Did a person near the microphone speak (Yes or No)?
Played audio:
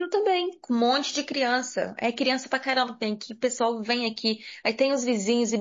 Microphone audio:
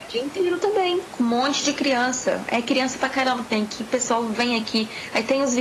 No